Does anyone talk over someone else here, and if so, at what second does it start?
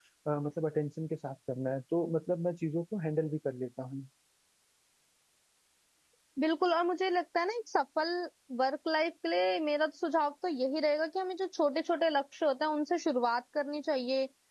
none

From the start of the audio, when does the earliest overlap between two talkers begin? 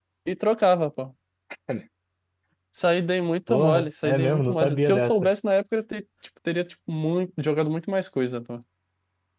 3.5 s

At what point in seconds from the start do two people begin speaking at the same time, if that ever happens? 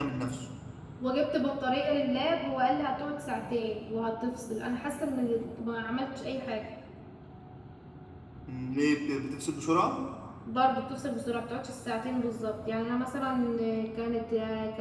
none

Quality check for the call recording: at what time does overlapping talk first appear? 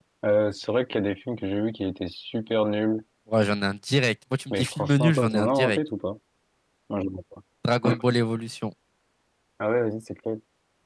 4.5 s

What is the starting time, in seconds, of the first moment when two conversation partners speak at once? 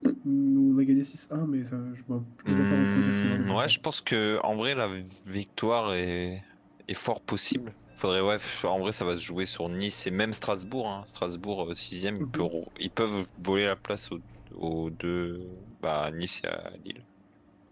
2.5 s

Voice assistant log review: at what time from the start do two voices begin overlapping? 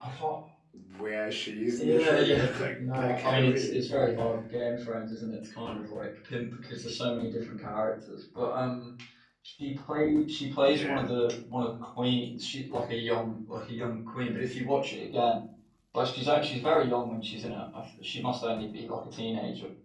1.8 s

